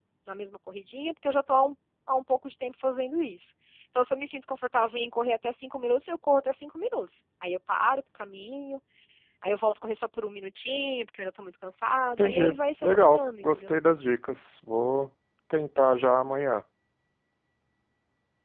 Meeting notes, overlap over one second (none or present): present